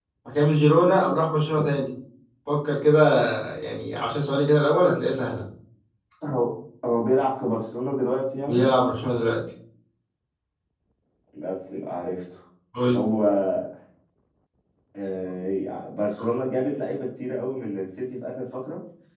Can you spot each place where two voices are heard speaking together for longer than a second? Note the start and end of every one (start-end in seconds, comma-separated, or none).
none